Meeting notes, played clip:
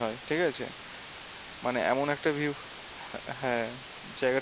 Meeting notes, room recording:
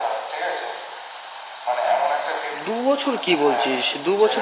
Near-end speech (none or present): present